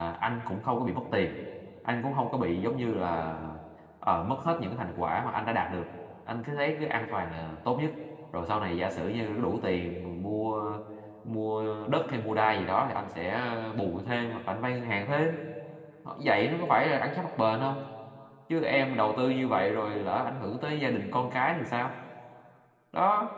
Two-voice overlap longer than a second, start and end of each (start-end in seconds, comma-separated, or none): none